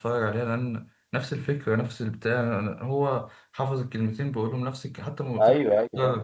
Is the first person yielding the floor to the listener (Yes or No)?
Yes